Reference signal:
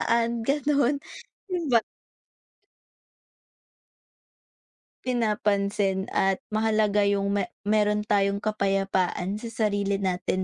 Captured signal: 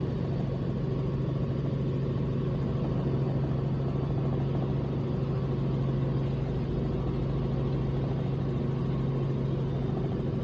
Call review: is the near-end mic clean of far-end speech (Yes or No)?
Yes